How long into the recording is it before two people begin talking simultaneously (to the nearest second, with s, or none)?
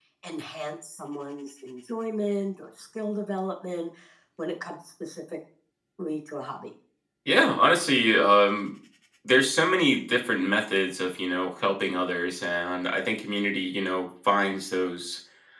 none